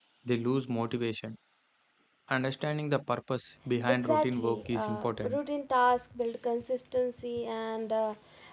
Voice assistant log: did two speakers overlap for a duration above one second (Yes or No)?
Yes